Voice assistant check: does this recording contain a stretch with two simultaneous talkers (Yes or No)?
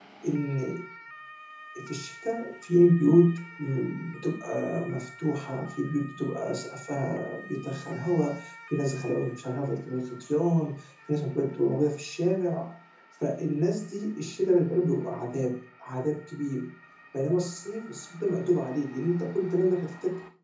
No